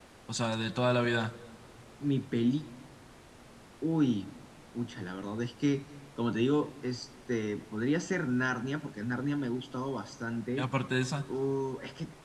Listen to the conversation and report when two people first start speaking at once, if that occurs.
none

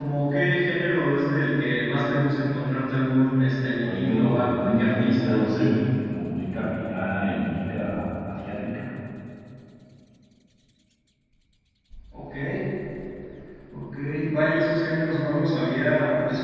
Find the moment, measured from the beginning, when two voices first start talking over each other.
3.8 s

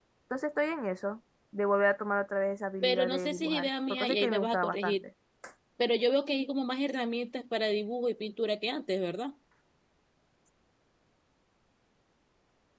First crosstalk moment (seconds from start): 2.8 s

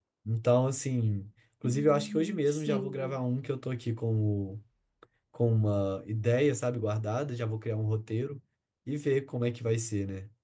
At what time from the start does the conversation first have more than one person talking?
1.6 s

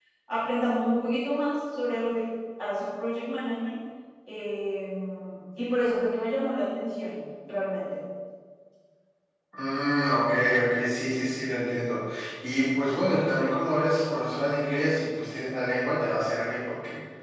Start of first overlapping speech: none

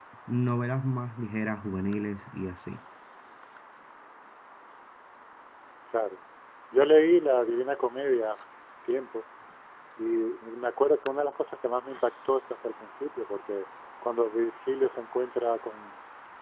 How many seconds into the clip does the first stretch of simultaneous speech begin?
none

